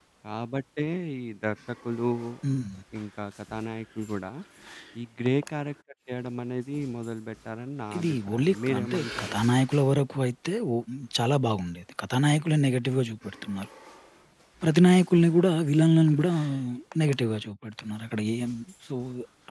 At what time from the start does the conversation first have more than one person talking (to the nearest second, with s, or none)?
8 s